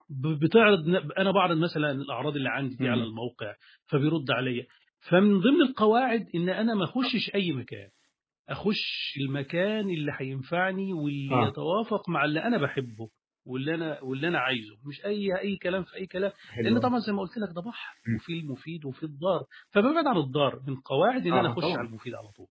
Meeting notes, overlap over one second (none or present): none